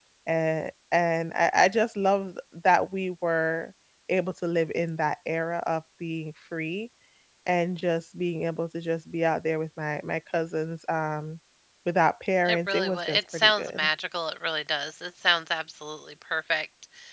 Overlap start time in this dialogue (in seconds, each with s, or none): 12.4 s